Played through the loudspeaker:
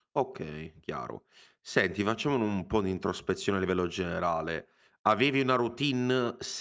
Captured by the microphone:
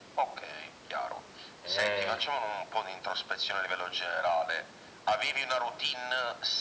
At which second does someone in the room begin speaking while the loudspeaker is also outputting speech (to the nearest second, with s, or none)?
2 s